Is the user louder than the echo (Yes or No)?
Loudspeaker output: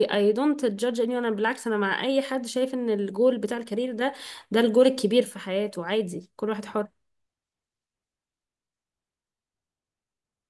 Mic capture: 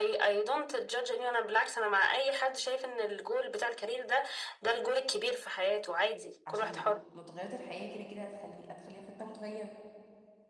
No